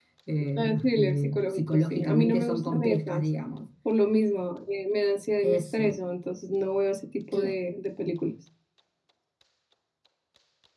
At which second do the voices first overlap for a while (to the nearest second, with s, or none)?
1 s